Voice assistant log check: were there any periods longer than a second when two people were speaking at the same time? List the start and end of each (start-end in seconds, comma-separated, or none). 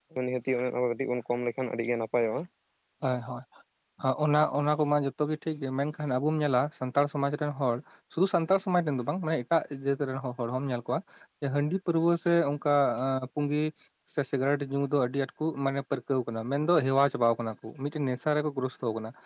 none